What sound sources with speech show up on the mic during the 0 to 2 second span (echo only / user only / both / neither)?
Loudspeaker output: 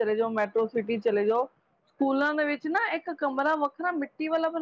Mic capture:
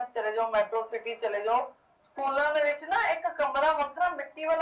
echo only